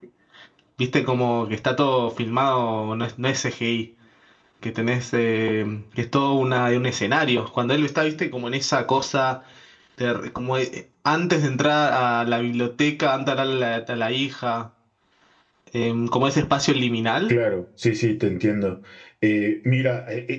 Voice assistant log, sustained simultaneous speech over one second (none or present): none